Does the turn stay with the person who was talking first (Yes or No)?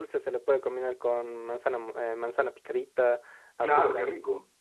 No